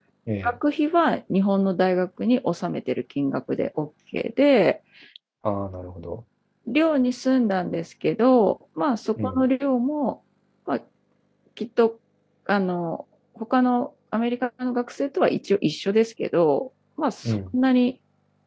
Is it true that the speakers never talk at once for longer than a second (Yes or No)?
Yes